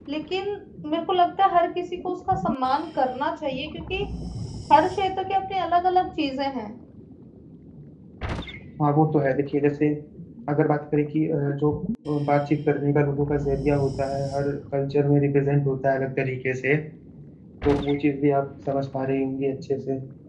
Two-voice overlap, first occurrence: none

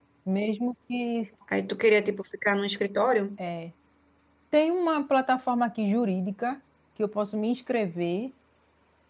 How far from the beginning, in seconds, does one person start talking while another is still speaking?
none

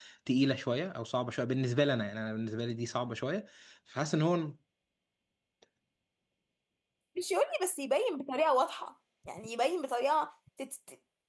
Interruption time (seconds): none

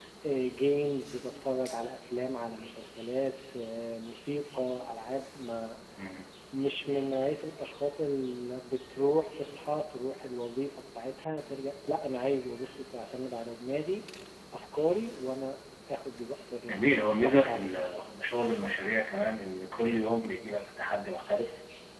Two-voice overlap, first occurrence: 16.7 s

